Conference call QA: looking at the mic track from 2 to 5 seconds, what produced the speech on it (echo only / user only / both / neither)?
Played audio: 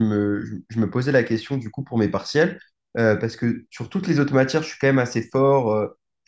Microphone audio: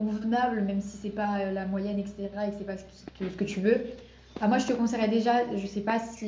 user only